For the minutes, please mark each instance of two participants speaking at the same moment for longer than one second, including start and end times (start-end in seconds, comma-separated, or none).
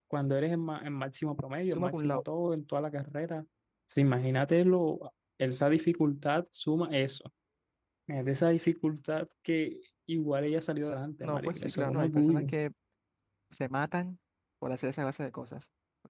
11.2-12.5